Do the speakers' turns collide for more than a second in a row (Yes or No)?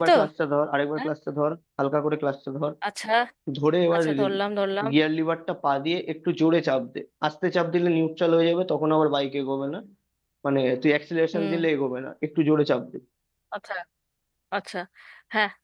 No